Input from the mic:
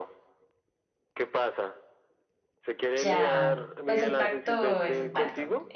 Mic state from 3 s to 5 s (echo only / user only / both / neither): both